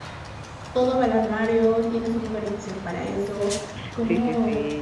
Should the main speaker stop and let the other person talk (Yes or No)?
Yes